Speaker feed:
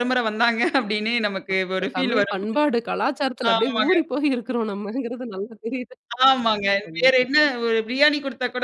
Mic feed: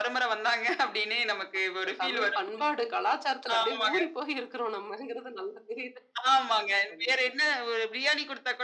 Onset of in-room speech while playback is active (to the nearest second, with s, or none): none